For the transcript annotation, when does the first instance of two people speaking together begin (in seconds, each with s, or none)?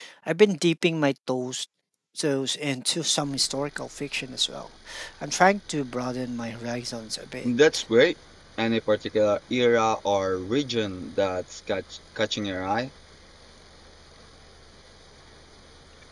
none